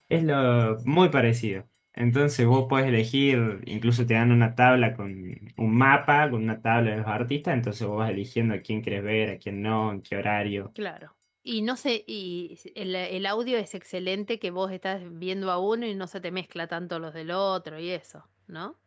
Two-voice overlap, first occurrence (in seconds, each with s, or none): none